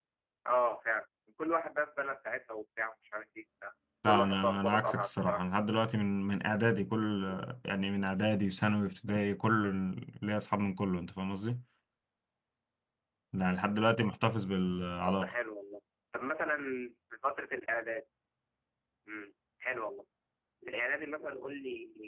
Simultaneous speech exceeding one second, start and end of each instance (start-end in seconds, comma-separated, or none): 4.1-5.4